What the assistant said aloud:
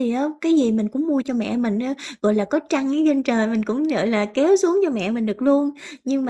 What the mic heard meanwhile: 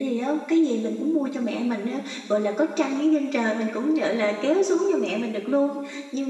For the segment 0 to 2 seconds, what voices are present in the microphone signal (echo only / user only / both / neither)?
echo only